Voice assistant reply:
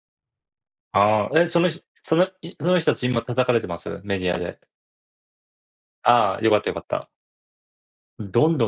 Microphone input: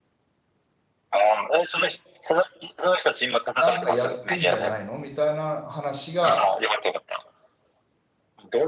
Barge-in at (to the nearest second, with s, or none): 4 s